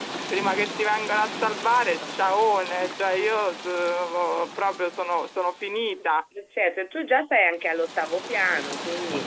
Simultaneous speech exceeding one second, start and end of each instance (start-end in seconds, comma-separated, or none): none